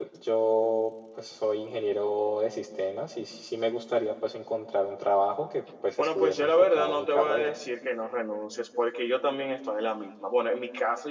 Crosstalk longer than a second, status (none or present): present